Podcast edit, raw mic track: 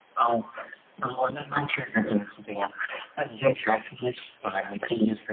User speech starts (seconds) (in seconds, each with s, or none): none